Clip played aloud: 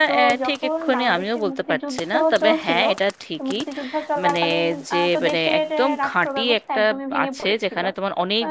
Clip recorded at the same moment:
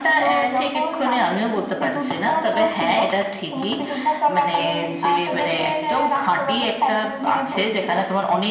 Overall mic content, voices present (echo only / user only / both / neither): echo only